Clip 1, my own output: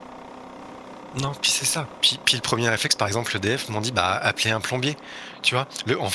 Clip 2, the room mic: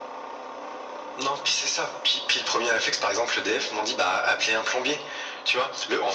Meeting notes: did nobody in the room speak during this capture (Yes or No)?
Yes